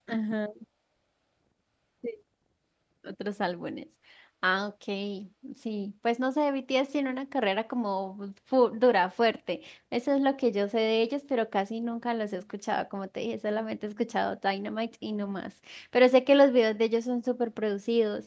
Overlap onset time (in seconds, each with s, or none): none